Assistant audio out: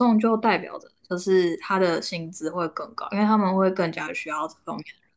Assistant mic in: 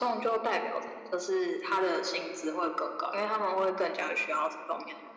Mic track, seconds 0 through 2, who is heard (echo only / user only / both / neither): echo only